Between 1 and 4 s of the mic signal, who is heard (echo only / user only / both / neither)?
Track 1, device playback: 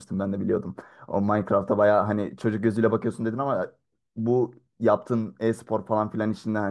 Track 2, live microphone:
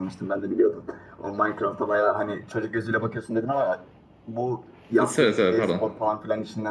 echo only